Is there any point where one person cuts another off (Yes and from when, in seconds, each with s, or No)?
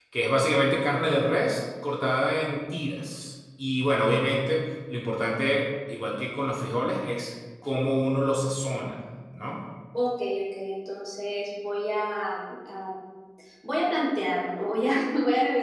No